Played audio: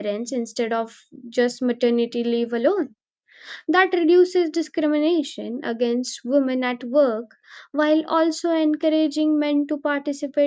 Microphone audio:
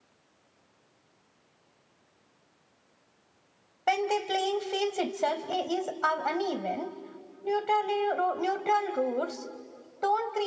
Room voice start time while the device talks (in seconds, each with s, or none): 3.8 s